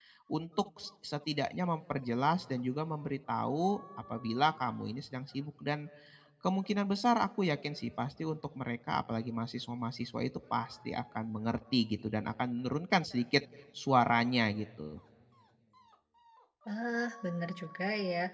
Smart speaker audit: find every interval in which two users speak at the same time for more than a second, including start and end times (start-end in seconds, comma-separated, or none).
none